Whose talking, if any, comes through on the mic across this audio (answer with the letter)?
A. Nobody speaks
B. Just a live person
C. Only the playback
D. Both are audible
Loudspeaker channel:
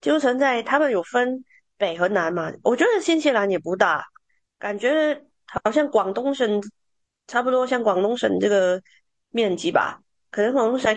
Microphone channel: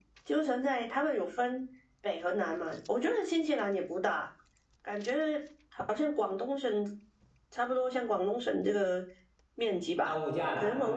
D